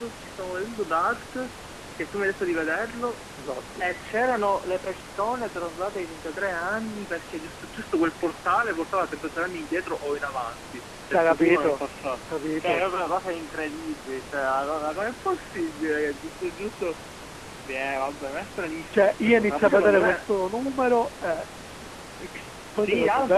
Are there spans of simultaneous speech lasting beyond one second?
Yes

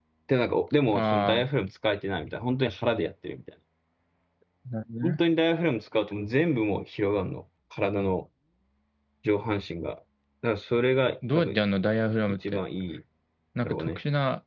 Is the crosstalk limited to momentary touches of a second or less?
Yes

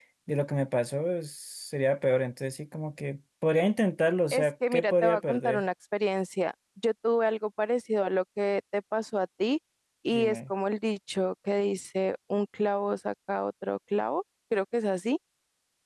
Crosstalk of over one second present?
Yes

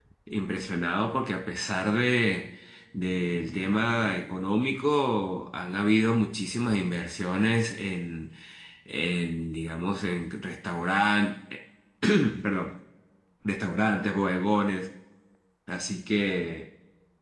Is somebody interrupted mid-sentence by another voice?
No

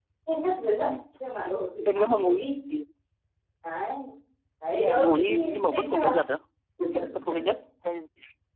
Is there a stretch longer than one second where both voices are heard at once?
Yes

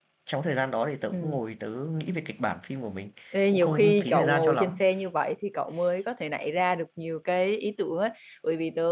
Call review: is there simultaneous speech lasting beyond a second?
Yes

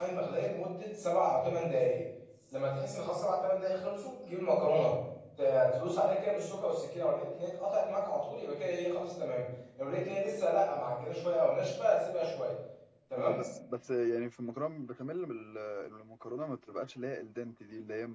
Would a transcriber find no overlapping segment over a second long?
Yes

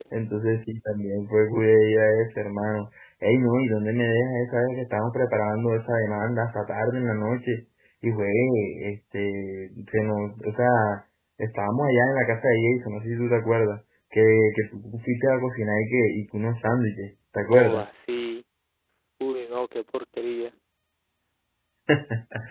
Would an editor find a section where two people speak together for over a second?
No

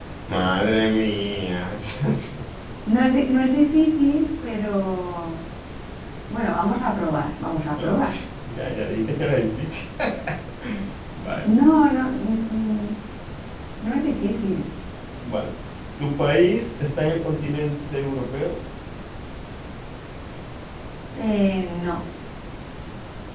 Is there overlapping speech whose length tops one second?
No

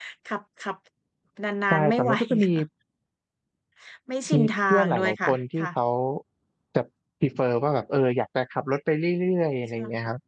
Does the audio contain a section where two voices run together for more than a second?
Yes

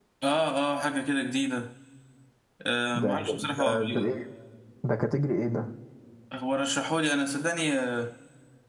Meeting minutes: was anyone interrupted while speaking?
Yes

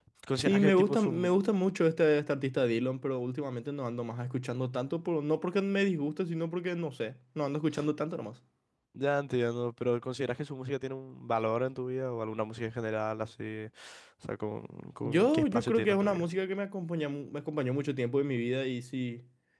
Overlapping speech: Yes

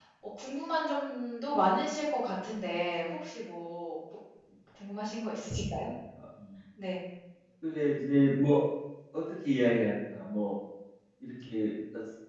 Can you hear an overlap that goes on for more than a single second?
No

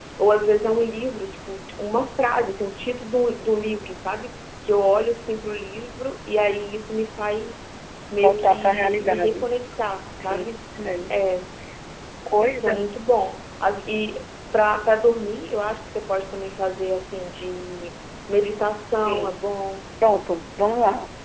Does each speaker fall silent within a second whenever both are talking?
No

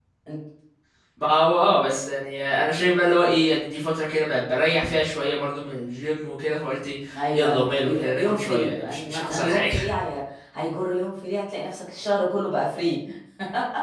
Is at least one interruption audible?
Yes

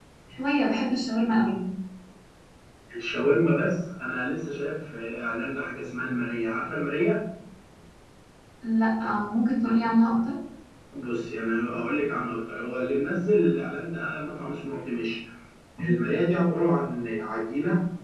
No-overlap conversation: Yes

